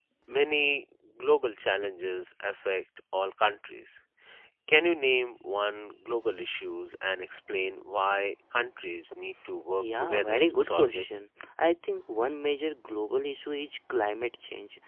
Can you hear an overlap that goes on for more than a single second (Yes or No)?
Yes